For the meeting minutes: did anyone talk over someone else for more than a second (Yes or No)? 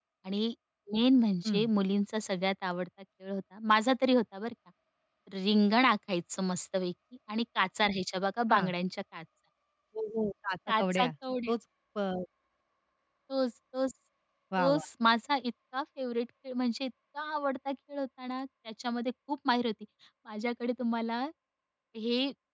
No